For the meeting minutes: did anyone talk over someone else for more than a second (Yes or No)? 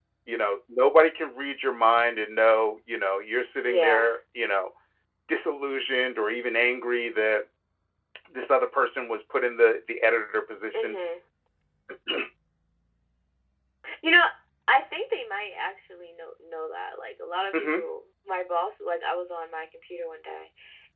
No